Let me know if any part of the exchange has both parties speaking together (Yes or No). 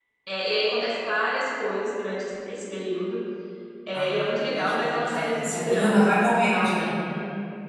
Yes